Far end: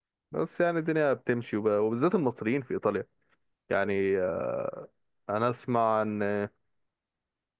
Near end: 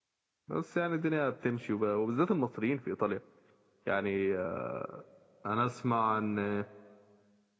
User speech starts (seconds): none

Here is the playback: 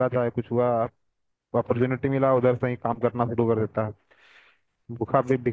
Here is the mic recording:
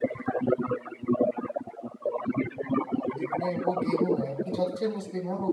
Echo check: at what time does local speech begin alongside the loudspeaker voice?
3.2 s

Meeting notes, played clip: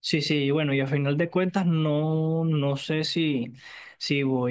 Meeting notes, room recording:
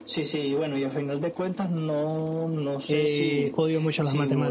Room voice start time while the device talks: 2.9 s

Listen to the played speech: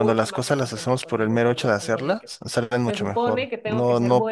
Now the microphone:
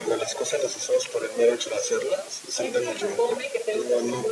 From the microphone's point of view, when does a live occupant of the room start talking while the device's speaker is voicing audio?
2.6 s

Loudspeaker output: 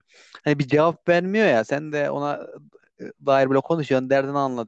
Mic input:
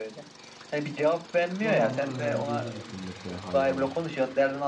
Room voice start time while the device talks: 1.6 s

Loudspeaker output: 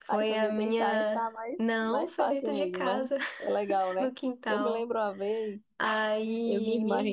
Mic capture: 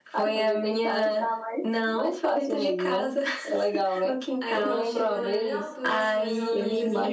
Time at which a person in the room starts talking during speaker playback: 4.4 s

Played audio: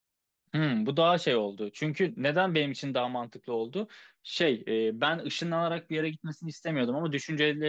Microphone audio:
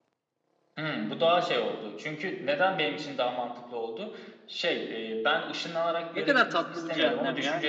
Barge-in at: 6.1 s

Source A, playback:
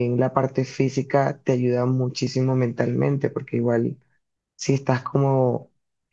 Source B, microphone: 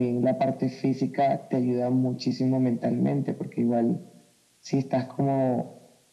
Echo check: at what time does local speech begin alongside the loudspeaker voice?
none

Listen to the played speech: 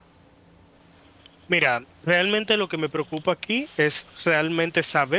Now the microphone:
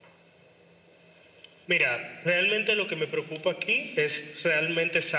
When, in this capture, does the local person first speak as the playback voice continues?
none

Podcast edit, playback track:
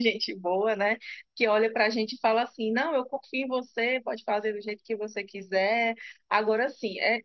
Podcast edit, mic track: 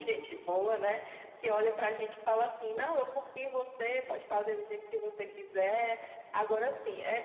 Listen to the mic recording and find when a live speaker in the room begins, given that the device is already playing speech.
none

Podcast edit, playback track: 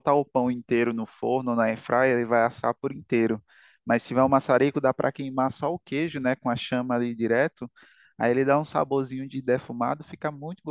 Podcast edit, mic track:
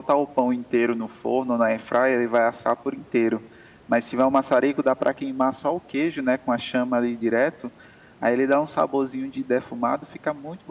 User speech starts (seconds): none

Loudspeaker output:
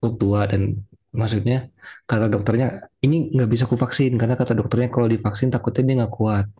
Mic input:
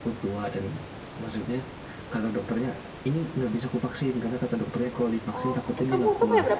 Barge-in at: 5.3 s

